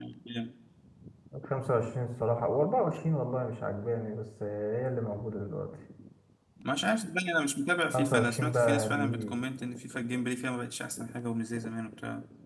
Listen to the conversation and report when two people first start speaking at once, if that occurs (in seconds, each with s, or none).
7.9 s